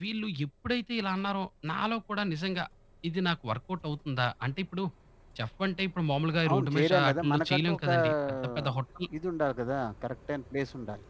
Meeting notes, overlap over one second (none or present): present